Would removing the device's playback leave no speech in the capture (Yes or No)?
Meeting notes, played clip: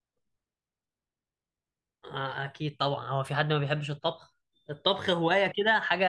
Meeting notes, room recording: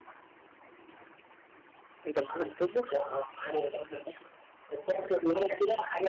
No